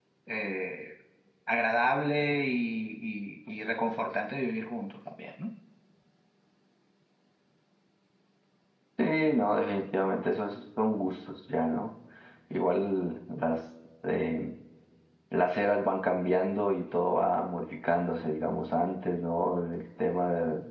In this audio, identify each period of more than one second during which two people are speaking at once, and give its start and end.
none

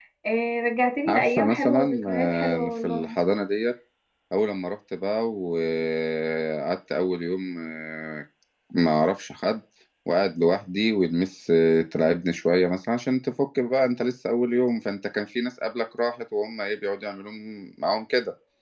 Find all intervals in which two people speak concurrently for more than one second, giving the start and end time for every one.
1.1-3.1

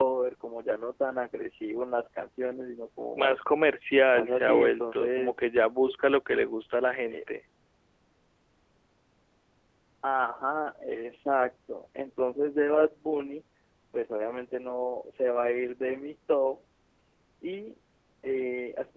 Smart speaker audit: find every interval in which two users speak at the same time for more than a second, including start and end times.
4.1-5.4

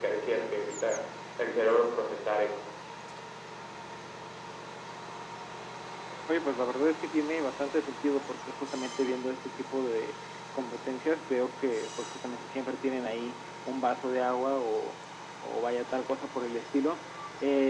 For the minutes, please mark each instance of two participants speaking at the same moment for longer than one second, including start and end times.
none

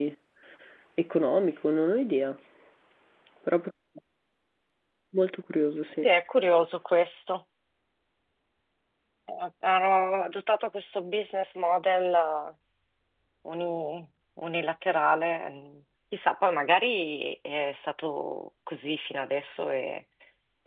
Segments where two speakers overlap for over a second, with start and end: none

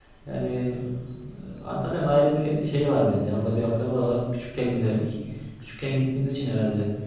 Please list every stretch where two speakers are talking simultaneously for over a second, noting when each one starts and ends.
none

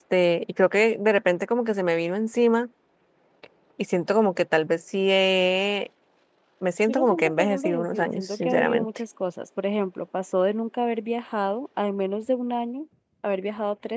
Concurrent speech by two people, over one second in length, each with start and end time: 6.9-8.8

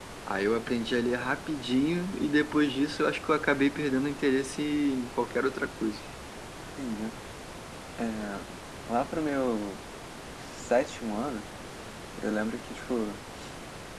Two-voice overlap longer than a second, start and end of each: none

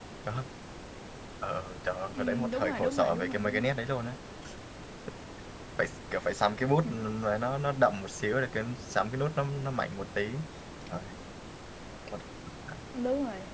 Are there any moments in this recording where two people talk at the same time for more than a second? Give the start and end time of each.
2.1-3.7

